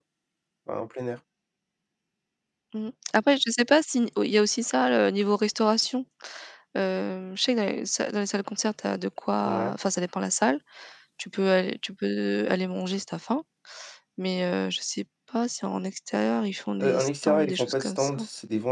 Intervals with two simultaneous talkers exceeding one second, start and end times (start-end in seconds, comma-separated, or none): 16.8-18.1